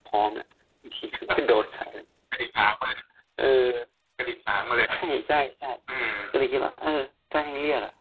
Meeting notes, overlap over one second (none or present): none